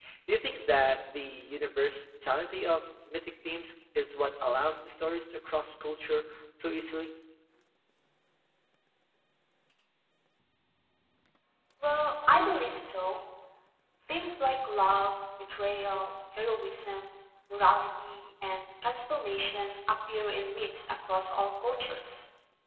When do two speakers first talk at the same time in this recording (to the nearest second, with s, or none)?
none